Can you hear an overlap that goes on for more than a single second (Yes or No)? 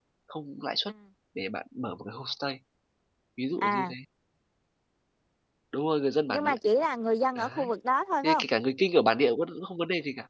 No